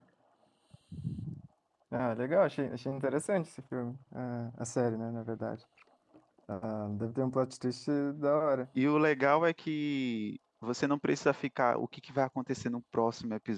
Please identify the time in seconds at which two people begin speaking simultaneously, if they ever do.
none

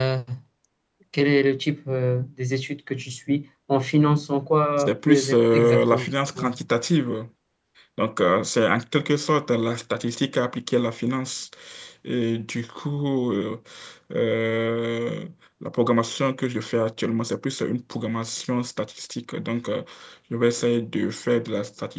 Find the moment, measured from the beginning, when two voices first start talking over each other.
5 s

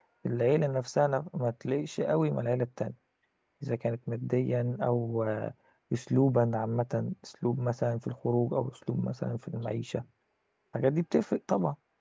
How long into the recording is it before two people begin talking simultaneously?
none

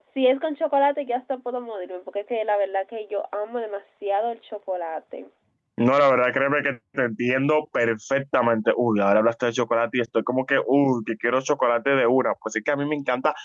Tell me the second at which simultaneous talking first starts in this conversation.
none

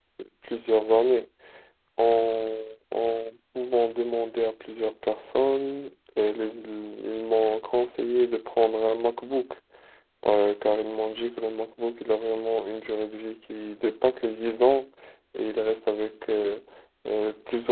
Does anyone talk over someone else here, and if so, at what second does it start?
none

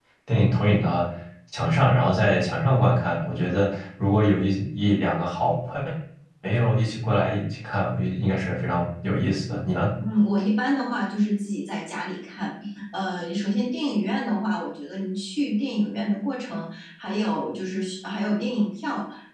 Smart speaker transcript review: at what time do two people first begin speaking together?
none

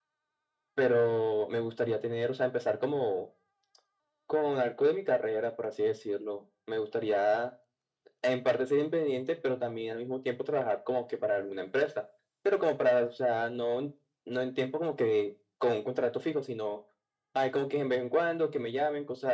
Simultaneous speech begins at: none

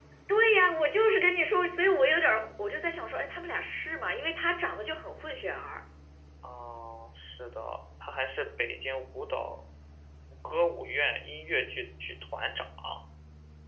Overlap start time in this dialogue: none

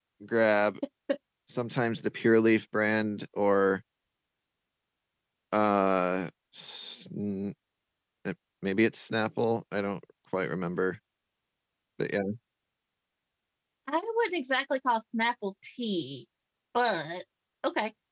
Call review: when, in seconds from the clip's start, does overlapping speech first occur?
none

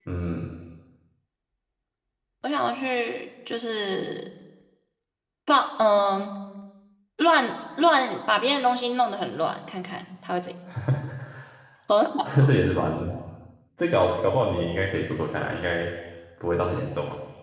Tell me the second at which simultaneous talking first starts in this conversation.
none

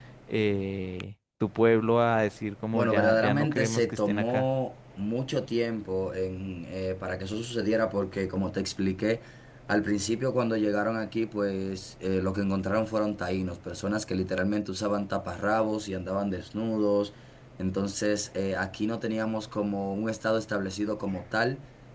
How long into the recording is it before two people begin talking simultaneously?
3 s

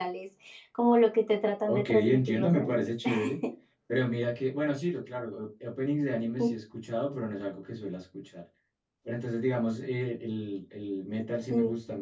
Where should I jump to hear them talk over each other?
2 s

